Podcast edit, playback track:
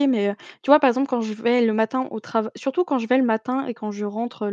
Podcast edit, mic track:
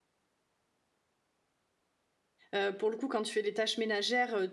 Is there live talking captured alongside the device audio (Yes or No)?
Yes